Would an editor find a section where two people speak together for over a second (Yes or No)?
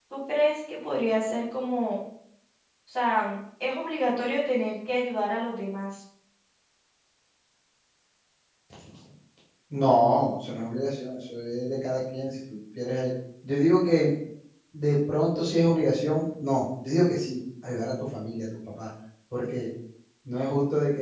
No